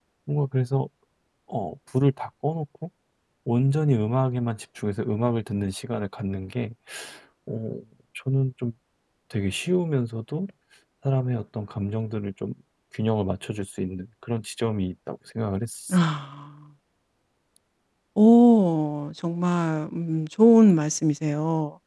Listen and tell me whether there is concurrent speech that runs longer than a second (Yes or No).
No